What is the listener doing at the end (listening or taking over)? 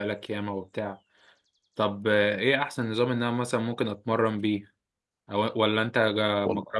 listening